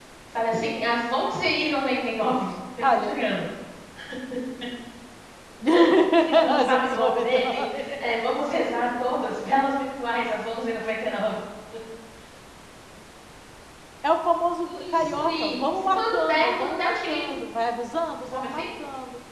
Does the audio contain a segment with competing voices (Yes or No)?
Yes